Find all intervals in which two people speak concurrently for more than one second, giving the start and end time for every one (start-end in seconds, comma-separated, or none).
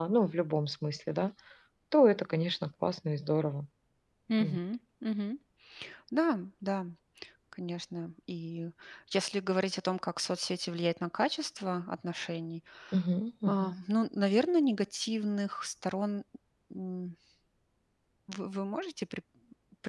none